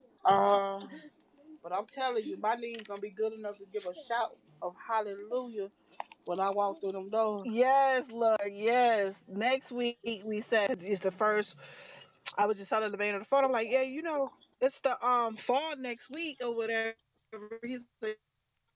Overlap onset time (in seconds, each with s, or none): none